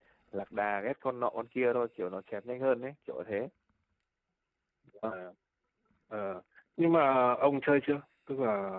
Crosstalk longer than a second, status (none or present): none